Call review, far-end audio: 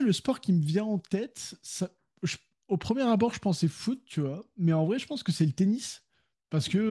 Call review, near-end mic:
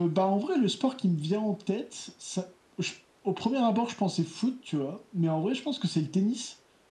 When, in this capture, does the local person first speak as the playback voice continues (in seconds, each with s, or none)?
none